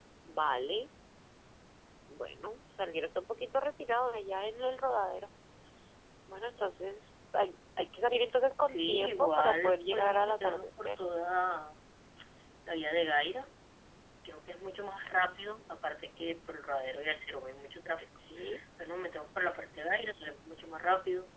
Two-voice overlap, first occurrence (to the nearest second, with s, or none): 9 s